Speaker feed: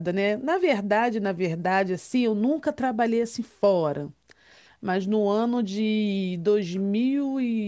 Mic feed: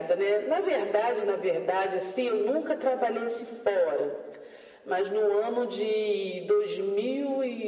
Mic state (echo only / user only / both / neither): echo only